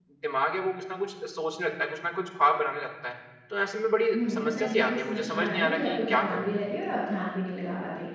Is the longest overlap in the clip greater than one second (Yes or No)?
Yes